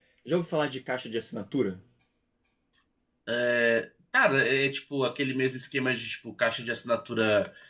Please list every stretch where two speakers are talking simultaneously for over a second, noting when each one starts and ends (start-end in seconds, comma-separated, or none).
none